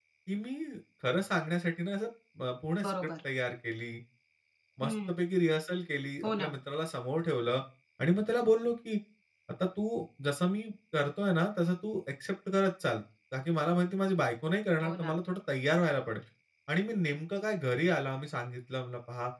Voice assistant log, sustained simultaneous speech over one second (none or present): none